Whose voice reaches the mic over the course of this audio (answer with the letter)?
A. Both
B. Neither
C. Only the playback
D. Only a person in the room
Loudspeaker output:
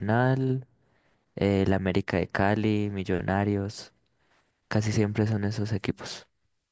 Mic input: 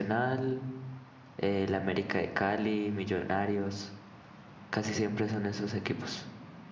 C